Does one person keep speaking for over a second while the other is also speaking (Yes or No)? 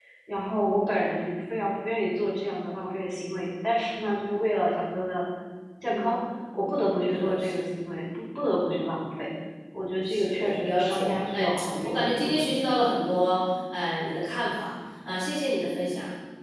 Yes